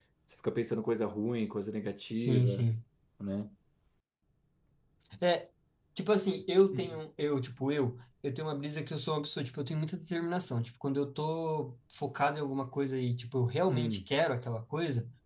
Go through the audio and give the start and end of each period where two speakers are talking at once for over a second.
none

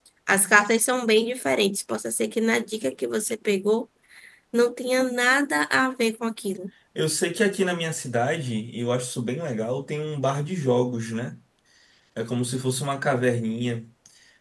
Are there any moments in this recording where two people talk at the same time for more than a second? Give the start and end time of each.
none

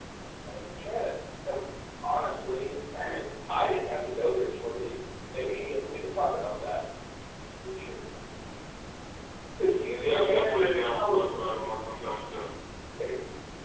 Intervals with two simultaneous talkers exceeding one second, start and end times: 10.0-12.1

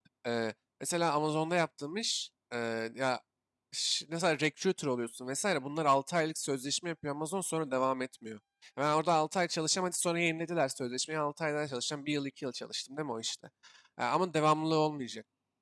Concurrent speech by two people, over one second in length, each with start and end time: none

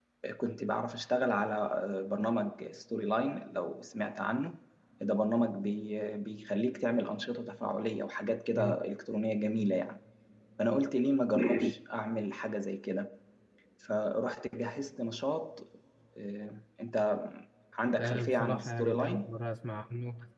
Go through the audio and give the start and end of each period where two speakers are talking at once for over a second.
18.0-19.4

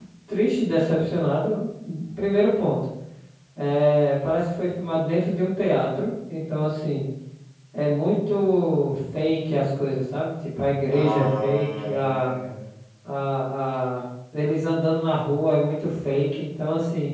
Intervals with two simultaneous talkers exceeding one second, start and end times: 10.9-12.3

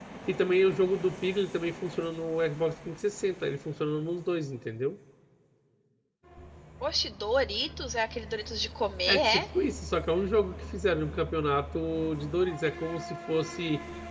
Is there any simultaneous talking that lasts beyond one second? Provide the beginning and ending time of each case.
none

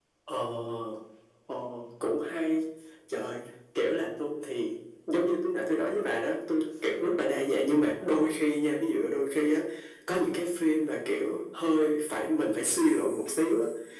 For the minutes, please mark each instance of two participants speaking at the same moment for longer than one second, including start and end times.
none

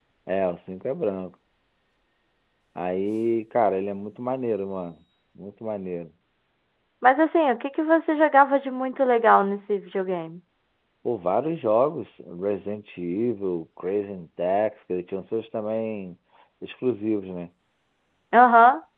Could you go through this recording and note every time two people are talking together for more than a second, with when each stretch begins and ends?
none

